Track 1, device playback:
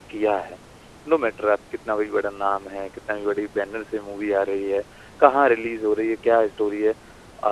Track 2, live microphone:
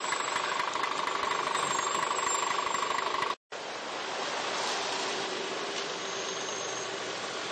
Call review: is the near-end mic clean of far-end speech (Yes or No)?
Yes